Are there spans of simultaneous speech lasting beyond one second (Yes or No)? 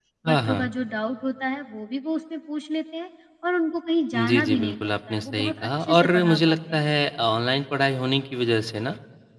Yes